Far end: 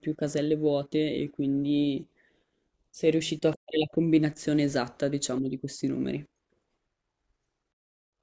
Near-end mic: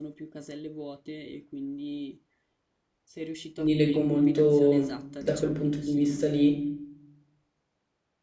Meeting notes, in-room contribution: present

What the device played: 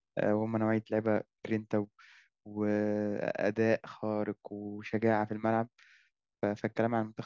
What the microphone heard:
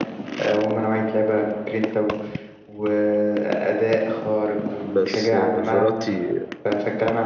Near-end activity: present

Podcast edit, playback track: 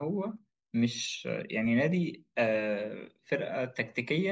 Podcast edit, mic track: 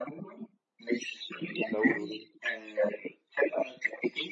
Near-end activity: present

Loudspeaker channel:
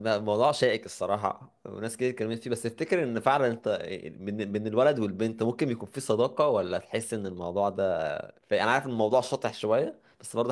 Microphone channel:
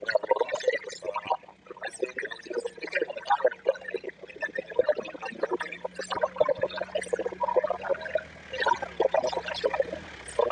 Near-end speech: none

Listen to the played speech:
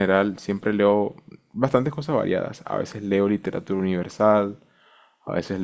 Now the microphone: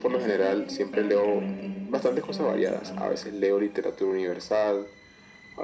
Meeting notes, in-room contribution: present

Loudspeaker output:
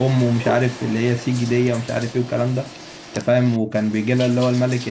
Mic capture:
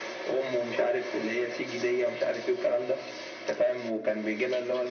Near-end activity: none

